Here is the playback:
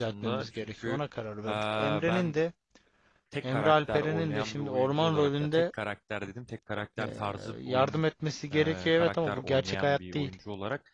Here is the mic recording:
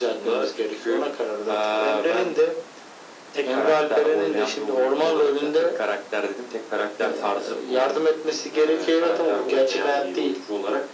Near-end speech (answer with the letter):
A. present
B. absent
B